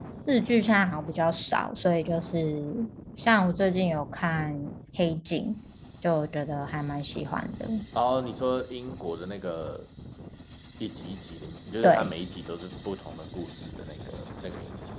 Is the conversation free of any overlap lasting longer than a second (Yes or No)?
Yes